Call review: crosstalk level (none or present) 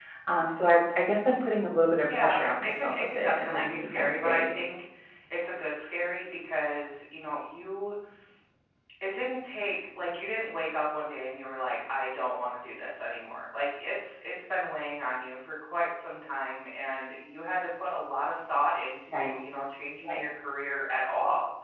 present